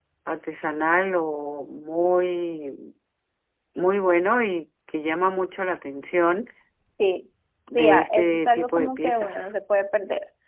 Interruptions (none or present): present